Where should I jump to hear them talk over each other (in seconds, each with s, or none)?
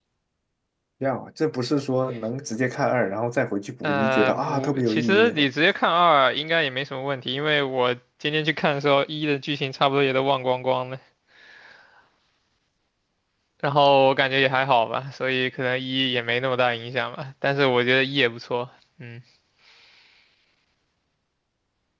3.8 s